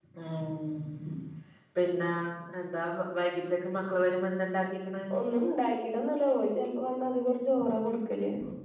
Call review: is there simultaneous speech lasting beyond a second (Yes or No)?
No